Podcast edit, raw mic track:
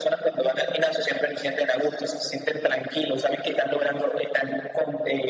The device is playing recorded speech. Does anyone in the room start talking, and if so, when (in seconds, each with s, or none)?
none